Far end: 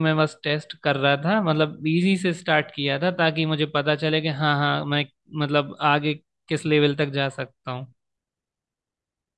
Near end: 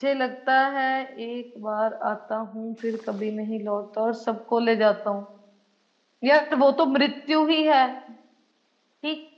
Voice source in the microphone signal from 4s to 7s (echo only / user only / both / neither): user only